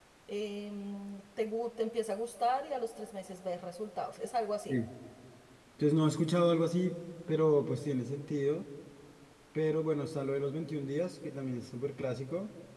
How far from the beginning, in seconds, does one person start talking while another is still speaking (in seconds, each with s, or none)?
none